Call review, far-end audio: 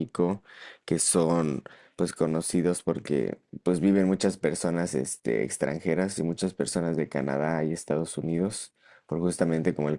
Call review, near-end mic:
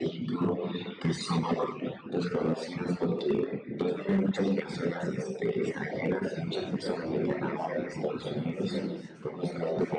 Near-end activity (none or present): present